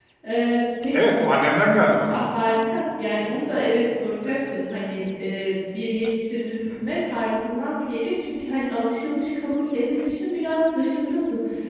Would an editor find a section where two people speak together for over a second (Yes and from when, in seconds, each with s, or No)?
No